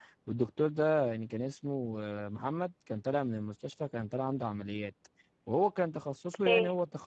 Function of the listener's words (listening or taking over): listening